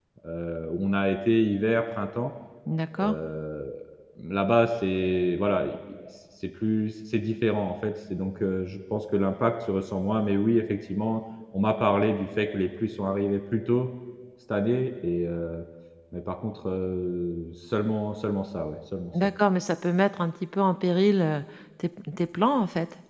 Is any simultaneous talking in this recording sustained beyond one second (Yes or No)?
No